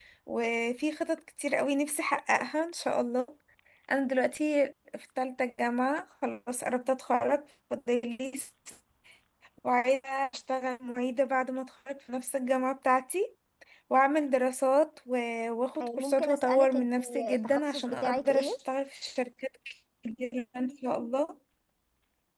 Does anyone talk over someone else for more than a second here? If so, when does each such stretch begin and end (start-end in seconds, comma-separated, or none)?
15.8-18.5